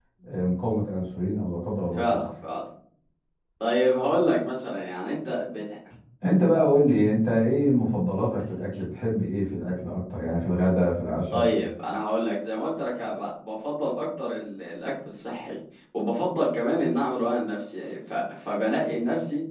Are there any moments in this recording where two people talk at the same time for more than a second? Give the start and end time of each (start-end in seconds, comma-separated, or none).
none